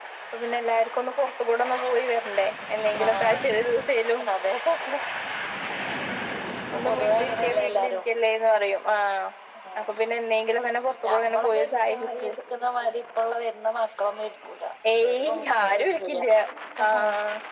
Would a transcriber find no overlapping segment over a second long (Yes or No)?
No